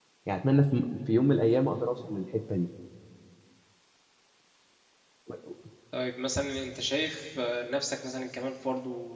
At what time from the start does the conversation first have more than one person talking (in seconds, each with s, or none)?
none